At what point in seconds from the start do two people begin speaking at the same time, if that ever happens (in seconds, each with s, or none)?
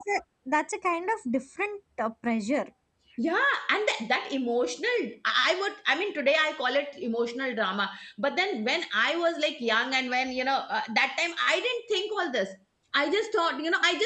none